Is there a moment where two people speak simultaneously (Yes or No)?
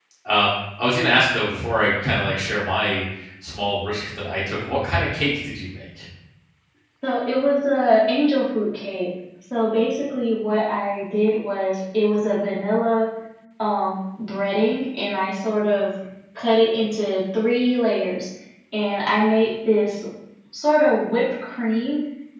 No